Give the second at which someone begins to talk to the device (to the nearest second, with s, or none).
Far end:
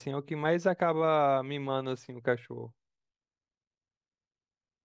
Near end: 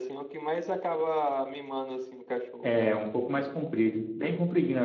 3 s